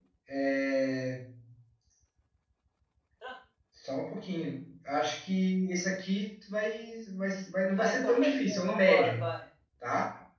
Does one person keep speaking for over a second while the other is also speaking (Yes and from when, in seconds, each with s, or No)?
Yes, from 7.8 s